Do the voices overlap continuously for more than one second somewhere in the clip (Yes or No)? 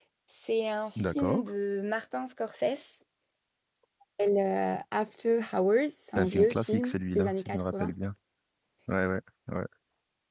Yes